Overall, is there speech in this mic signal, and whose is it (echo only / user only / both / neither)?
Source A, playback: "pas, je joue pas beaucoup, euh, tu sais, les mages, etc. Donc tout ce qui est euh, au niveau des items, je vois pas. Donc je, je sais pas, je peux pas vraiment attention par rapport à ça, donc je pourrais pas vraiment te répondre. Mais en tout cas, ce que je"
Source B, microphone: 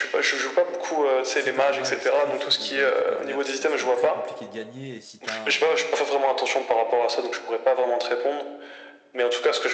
both